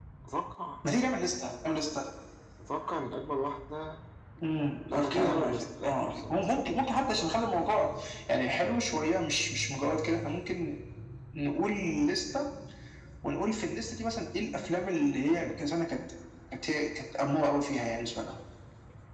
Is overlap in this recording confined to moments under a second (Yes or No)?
No